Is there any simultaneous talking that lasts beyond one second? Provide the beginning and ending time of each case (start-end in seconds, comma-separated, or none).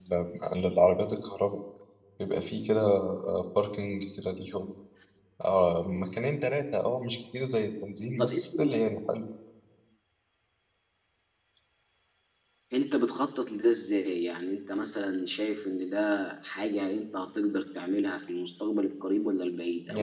none